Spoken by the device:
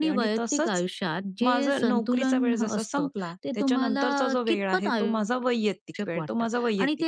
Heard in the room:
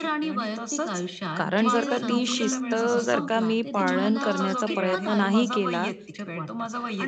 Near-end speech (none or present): present